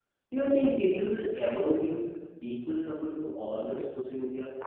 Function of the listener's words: taking over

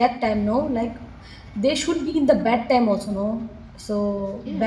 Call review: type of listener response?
taking over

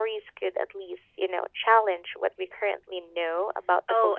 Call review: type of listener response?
taking over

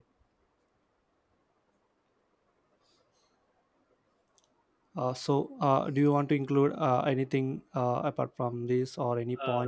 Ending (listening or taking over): taking over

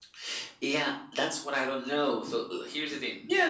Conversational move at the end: taking over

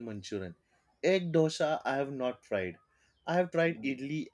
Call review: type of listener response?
listening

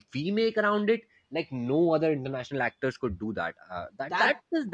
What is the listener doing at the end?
listening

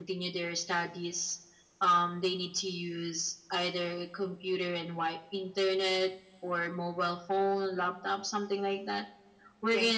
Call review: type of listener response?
listening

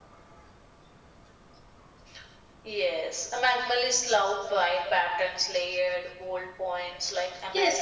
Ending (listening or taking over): taking over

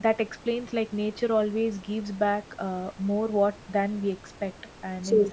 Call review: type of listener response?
listening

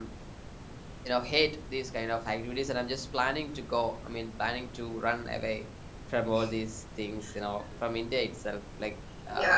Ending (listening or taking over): taking over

